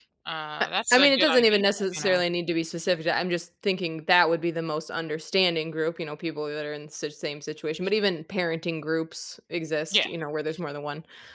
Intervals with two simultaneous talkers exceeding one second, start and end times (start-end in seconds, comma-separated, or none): 0.6-2.2